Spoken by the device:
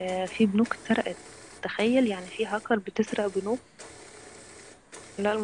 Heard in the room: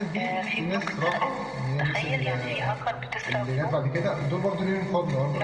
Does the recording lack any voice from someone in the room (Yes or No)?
No